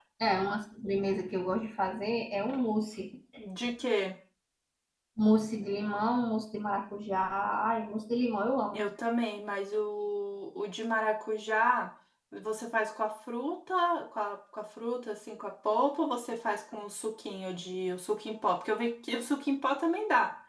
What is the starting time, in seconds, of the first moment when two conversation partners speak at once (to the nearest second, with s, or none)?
none